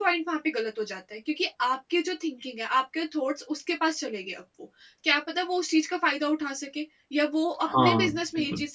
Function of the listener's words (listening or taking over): listening